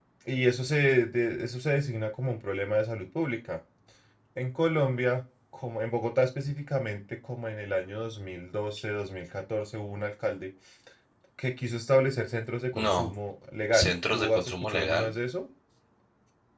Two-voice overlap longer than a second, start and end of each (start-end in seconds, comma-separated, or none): 13.7-15.1